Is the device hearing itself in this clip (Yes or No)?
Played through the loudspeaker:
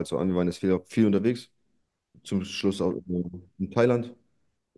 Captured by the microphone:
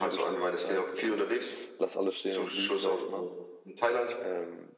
Yes